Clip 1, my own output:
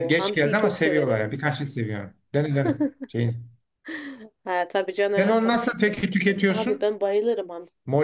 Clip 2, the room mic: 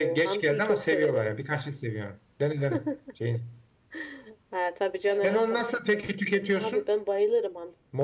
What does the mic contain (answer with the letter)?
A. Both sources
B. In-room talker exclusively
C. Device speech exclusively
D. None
A